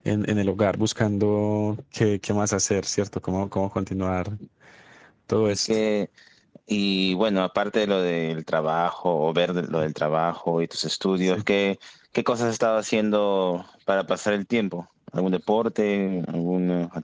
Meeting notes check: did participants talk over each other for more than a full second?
No

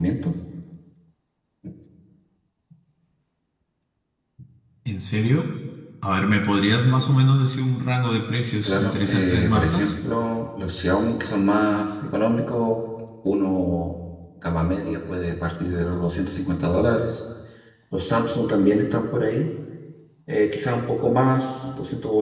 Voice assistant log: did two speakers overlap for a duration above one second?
Yes, from 8.6 s

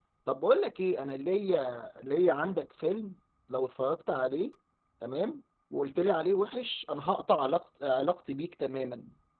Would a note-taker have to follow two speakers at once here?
No

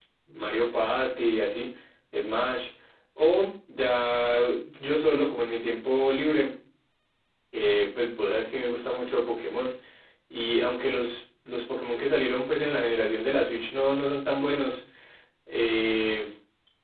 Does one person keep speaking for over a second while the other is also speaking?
No

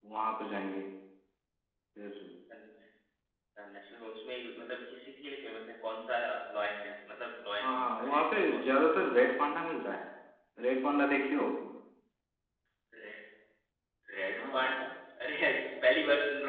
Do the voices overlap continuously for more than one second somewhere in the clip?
Yes, from 7.6 s

